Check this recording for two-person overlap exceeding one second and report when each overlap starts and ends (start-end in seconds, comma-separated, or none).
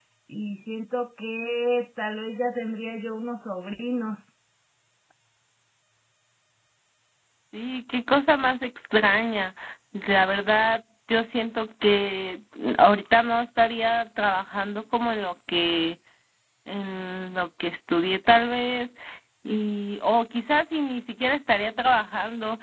none